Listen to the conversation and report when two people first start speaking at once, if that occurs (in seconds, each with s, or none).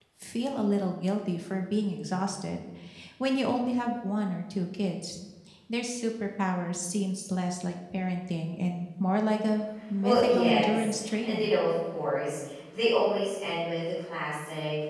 10.0 s